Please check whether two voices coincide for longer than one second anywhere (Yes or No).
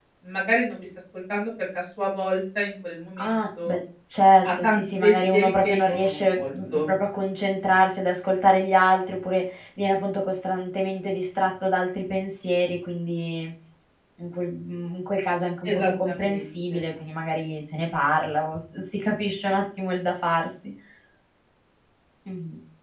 Yes